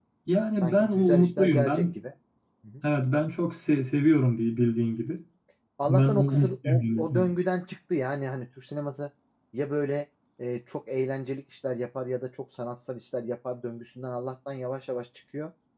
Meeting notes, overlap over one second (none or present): present